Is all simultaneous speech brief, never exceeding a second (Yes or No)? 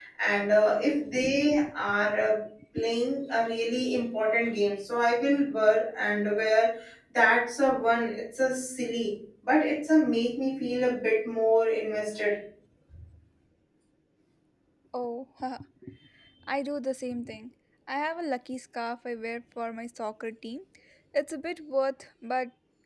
Yes